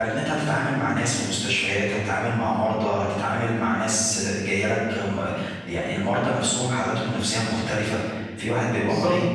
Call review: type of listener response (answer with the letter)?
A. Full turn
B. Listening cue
B